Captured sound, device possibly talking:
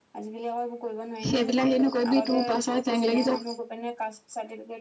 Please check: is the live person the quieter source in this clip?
No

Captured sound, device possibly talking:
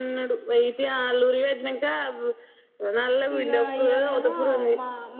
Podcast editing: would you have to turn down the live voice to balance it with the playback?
No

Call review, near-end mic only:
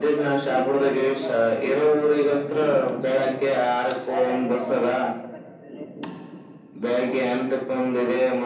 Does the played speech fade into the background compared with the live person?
No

